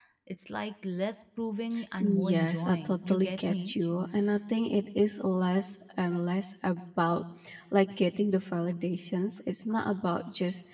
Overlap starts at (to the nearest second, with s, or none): 2 s